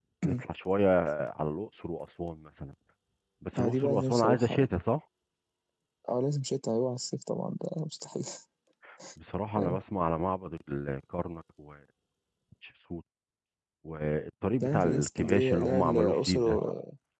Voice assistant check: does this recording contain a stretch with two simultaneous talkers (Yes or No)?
Yes